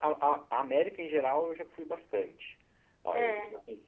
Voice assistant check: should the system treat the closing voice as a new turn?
No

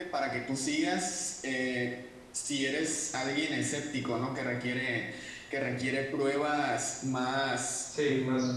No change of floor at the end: No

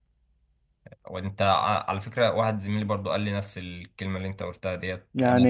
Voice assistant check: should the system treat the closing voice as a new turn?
No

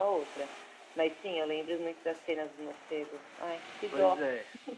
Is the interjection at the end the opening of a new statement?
Yes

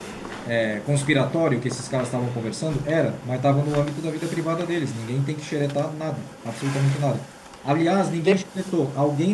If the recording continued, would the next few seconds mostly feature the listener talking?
No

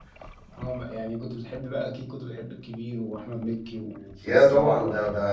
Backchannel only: No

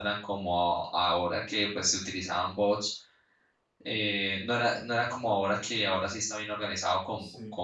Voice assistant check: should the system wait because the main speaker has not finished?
Yes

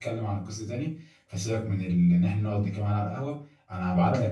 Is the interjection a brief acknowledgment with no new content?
Yes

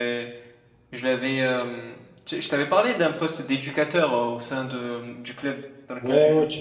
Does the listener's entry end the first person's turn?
Yes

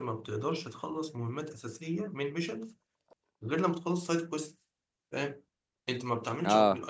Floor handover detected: No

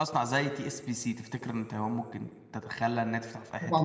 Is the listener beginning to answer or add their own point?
Yes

